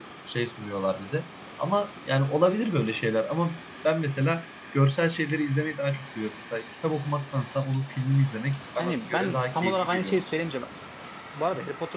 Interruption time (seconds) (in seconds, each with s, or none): 8.8 s